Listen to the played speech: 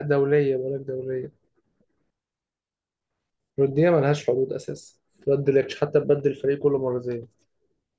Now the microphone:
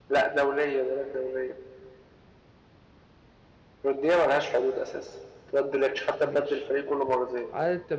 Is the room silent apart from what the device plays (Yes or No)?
No